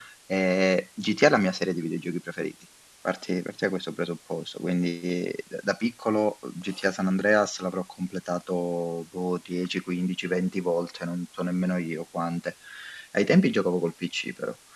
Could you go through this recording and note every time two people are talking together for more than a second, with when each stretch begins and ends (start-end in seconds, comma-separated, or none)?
none